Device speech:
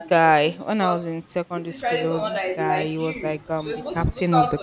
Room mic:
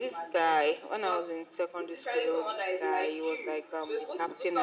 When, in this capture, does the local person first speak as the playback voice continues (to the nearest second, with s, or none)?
none